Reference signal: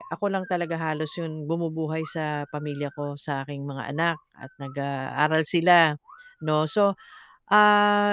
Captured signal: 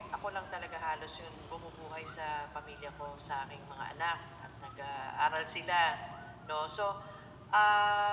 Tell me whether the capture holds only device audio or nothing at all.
Yes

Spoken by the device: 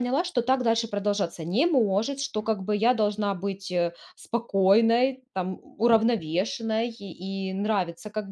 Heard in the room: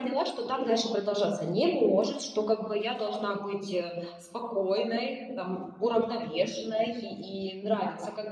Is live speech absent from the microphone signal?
Yes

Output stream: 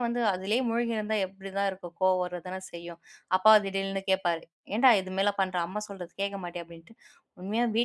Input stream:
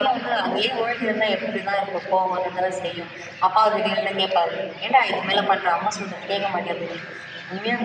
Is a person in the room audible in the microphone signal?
No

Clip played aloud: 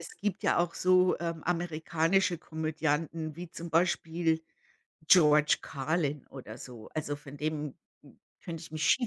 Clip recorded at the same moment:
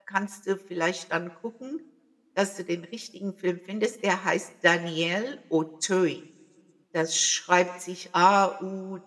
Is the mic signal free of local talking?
No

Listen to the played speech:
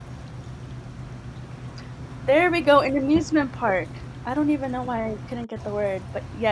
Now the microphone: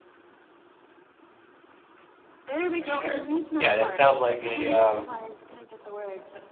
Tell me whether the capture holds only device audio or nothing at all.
No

